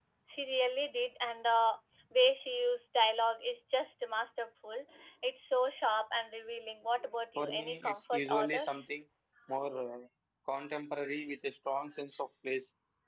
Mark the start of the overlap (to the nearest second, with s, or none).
7 s